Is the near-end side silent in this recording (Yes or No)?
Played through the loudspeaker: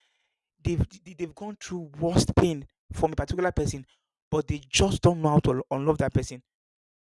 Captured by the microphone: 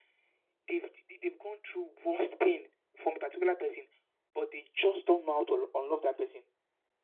Yes